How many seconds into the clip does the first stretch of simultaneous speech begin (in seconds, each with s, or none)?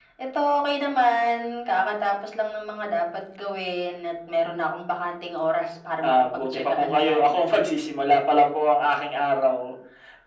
6.0 s